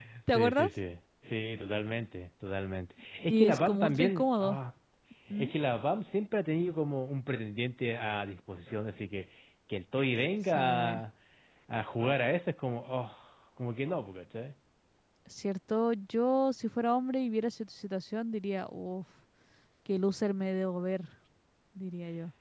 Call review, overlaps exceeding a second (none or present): present